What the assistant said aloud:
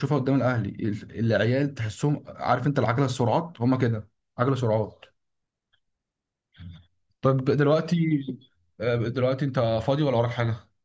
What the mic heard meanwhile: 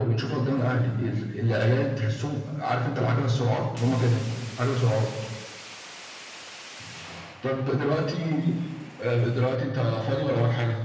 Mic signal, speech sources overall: echo only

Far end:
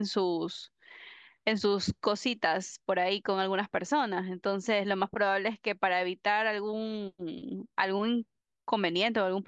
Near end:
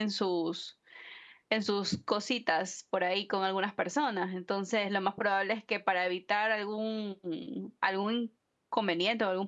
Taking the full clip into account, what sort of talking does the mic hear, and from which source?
echo only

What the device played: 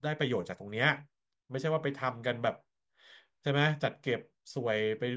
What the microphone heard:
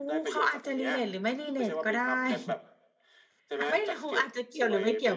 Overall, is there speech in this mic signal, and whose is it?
both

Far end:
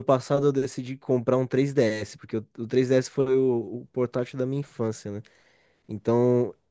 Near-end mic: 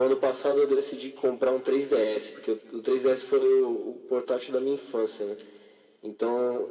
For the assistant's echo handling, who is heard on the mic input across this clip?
echo only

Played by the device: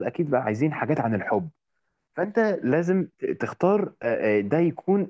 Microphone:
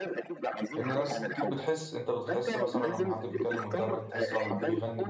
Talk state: both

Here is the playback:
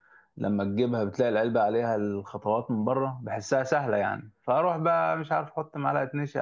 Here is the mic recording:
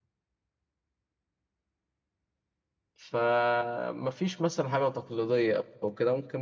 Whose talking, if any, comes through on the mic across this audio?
user only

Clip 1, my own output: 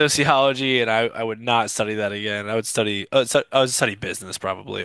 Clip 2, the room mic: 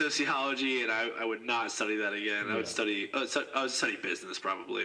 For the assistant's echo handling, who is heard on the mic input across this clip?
both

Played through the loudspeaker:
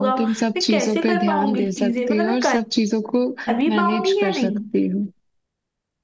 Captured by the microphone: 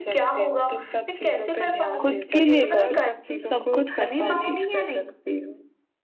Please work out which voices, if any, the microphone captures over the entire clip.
both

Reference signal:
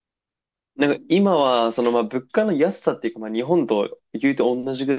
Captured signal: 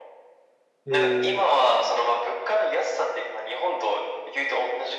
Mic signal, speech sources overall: both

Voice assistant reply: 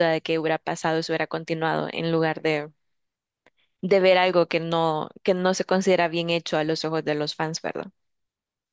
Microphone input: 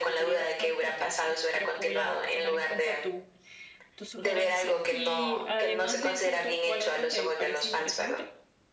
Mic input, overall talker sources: both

